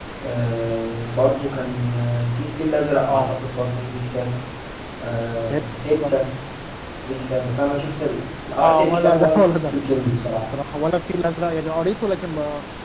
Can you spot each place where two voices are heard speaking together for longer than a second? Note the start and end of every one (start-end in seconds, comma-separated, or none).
8.5-9.7